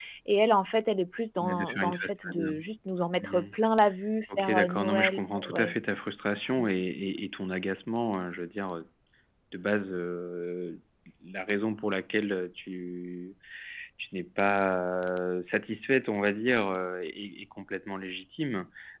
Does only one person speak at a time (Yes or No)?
No